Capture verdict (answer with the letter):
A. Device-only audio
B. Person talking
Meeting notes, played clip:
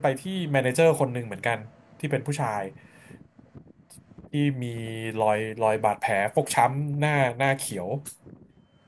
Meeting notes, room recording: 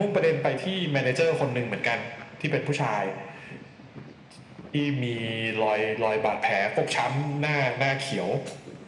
A